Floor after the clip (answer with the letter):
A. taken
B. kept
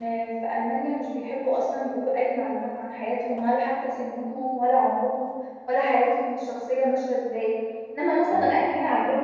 B